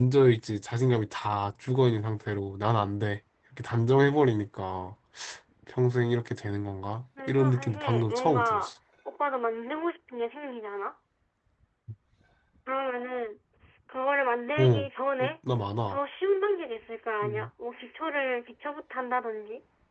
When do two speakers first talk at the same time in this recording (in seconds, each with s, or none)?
7.3 s